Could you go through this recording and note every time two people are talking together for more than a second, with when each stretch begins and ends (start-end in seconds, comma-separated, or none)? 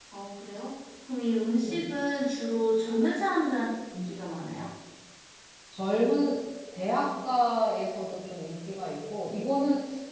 none